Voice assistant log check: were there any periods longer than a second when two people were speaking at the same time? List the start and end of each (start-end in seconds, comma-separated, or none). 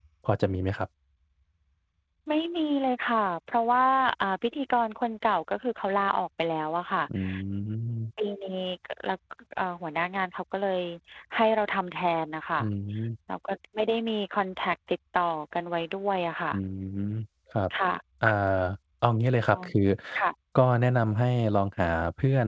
none